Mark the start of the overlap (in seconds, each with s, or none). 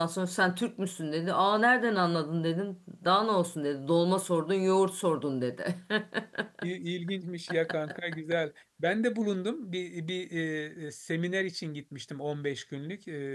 none